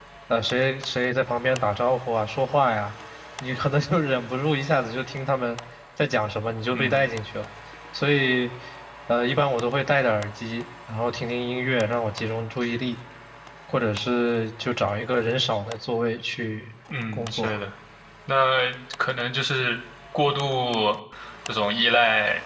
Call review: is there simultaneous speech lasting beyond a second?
No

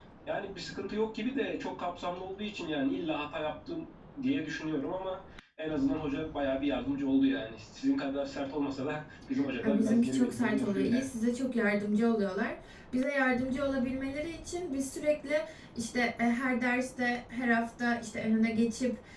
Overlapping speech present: Yes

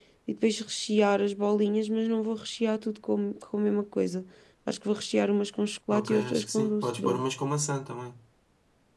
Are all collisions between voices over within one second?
No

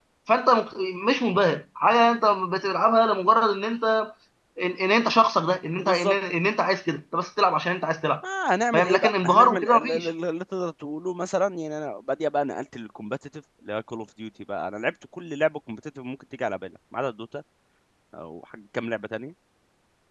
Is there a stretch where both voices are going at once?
Yes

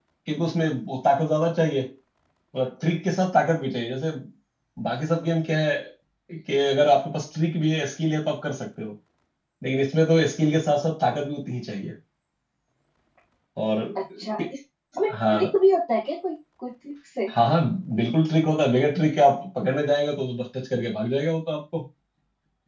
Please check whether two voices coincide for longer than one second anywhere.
No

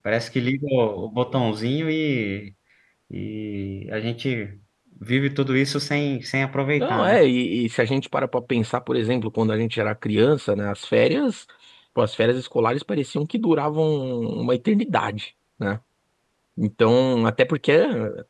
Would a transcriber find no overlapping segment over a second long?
Yes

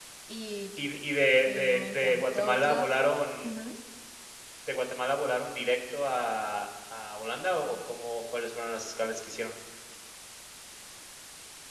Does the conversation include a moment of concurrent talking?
Yes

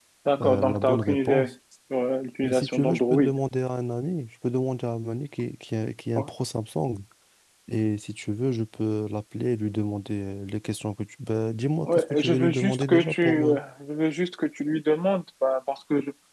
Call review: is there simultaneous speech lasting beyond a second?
Yes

